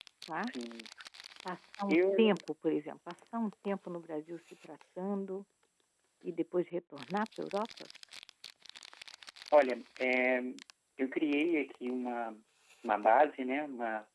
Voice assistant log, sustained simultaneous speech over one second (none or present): none